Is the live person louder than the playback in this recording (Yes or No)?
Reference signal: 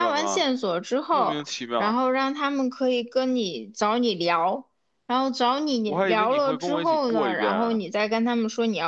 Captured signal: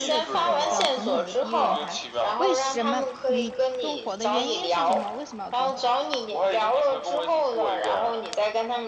No